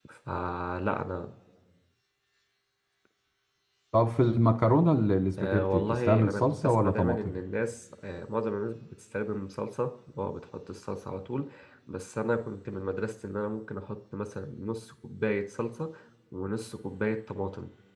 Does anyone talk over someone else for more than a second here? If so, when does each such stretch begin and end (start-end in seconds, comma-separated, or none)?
5.4-7.4